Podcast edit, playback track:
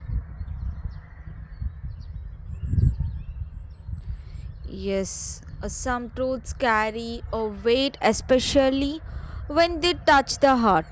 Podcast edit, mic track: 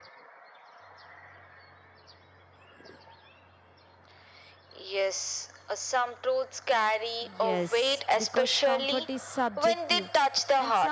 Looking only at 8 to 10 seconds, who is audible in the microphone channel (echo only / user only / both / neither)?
both